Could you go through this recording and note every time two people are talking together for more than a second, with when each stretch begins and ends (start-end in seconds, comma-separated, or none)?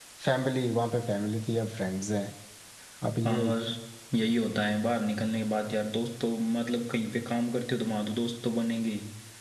none